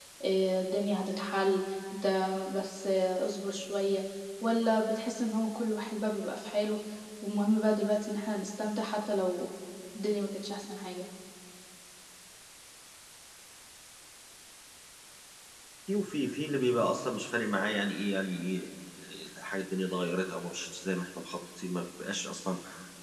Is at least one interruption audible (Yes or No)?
No